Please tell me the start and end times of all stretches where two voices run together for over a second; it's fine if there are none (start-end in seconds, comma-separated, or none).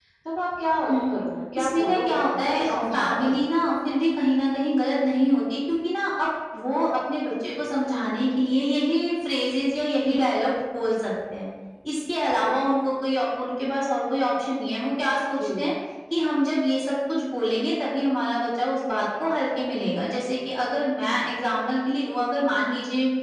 1.6-3.4